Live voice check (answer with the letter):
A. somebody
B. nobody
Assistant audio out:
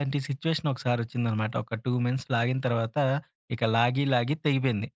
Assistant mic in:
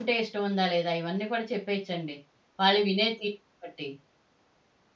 A